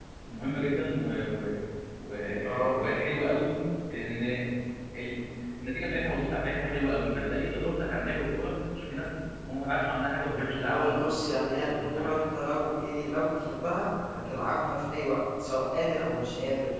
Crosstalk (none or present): present